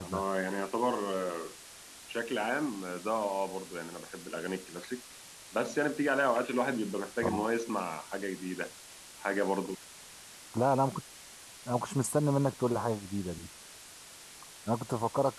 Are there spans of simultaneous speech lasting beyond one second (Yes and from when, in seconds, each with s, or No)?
No